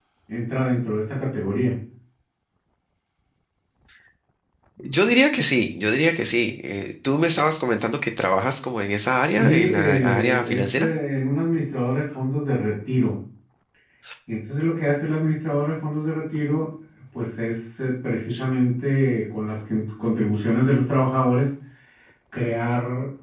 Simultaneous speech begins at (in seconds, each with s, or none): 9.4 s